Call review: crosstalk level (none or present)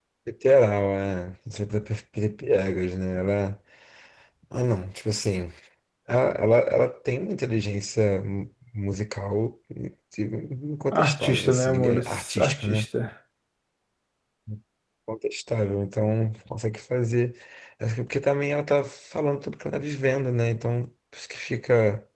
present